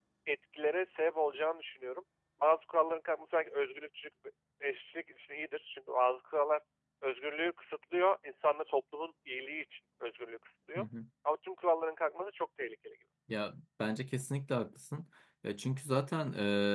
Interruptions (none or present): none